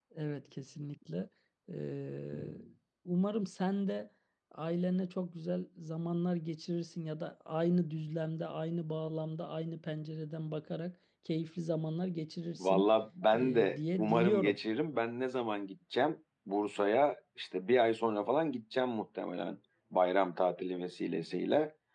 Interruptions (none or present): present